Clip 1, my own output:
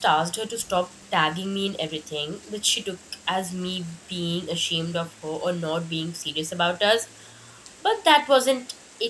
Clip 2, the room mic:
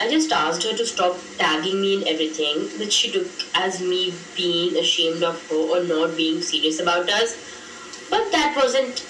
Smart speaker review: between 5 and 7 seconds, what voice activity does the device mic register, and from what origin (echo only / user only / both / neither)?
echo only